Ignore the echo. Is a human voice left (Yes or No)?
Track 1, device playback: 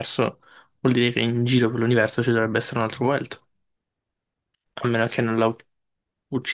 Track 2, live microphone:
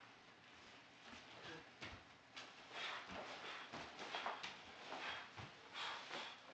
No